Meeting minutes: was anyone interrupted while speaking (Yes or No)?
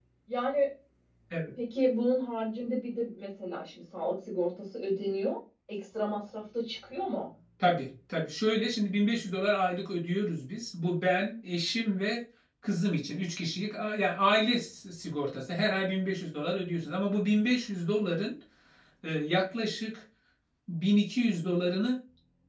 No